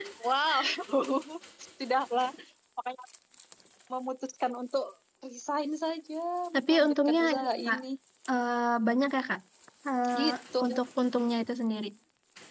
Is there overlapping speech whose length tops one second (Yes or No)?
Yes